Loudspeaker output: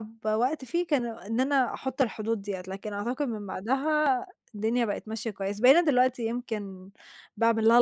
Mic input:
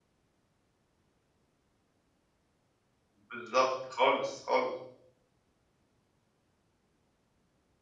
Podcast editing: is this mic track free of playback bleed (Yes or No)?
Yes